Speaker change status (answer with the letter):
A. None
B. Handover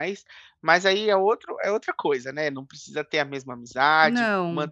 A